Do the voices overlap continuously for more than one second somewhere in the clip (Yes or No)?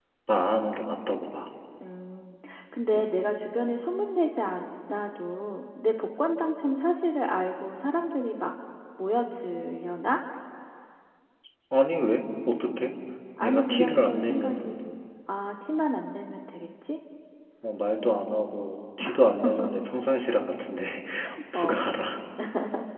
Yes